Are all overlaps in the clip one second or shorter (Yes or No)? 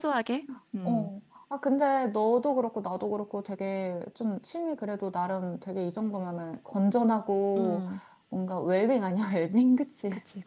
Yes